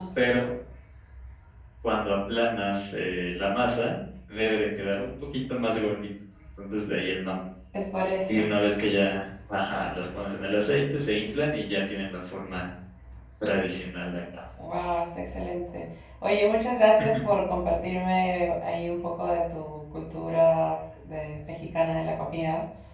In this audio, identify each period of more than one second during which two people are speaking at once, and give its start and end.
none

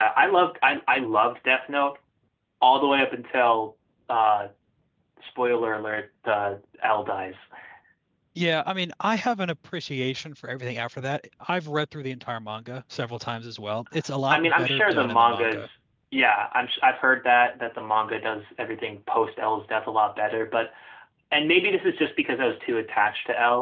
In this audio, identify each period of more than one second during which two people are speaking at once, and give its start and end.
14.3-15.7

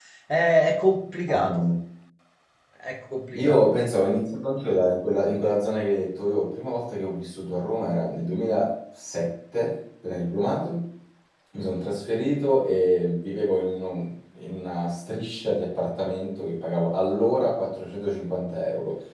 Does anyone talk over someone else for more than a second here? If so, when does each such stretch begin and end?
none

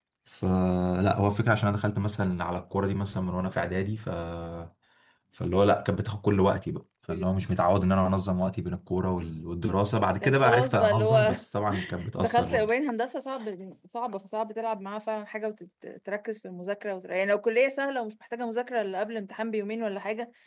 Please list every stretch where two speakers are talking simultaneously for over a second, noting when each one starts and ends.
10.2-11.4

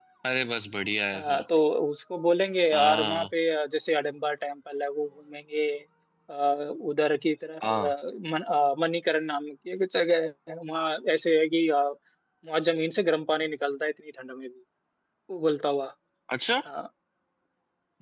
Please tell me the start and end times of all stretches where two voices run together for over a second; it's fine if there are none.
none

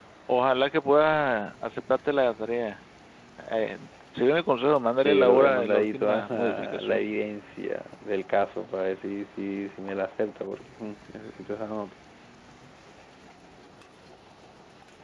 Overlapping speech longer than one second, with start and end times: 5.0-7.0

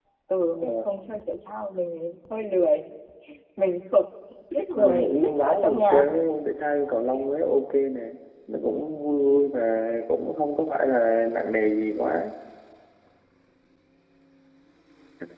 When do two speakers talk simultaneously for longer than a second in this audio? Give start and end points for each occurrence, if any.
4.8-6.1

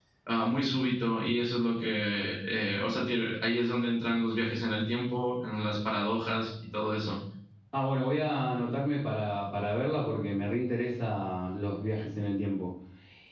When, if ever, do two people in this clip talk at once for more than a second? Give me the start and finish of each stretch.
none

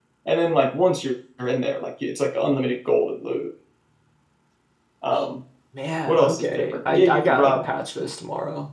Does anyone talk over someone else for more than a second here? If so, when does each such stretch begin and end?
6.1-7.7

